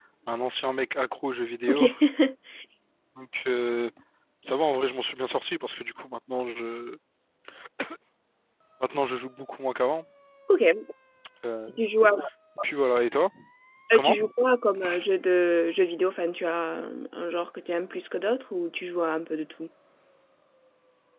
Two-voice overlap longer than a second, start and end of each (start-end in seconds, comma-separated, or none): none